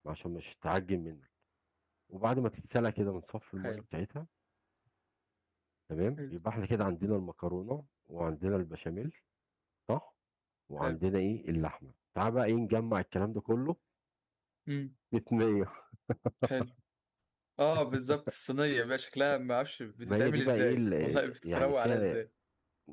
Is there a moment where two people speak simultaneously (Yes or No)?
Yes